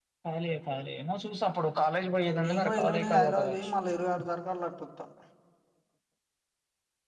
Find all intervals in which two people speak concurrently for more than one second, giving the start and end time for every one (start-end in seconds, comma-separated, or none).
2.4-3.6